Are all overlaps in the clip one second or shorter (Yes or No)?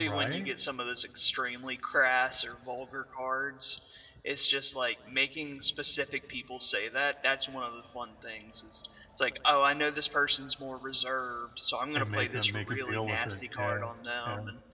No